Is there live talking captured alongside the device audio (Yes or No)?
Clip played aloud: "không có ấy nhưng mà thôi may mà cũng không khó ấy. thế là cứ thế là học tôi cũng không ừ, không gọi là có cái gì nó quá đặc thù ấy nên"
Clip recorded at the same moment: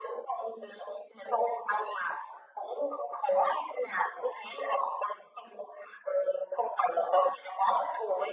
No